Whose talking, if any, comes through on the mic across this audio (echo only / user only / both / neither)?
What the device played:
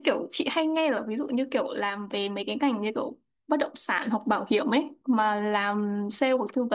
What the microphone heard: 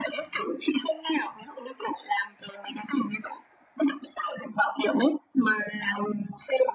echo only